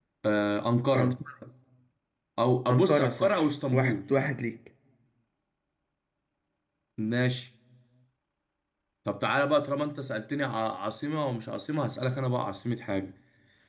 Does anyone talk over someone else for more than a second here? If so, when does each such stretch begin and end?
2.7-4.0

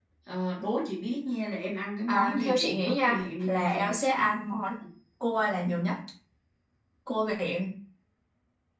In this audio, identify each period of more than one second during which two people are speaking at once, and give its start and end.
2.1-3.9

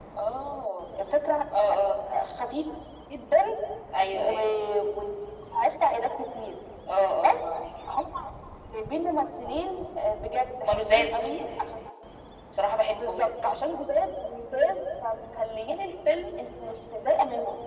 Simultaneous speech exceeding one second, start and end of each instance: 10.6-11.8

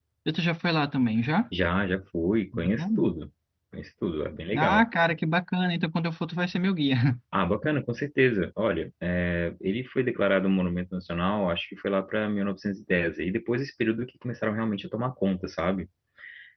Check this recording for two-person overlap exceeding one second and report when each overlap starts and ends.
none

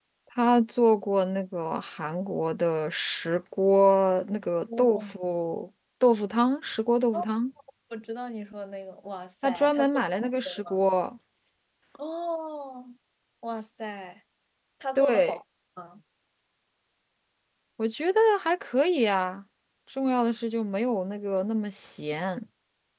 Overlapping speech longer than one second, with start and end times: 9.4-10.8

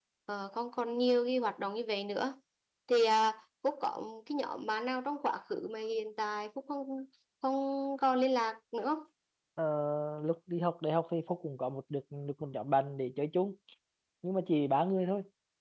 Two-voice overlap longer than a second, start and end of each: none

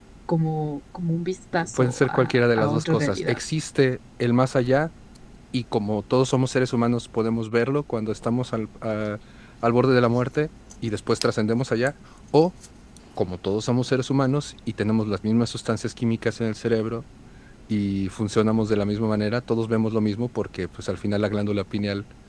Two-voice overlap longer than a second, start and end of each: 1.5-3.4

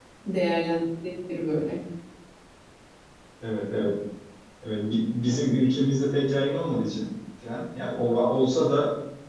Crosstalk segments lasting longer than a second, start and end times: none

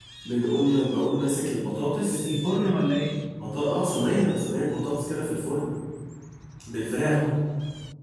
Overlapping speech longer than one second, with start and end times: none

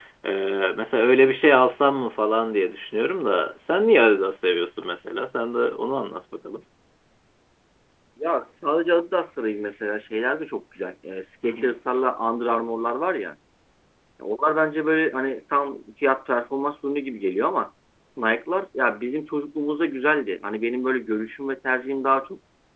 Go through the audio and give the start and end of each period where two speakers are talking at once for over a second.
none

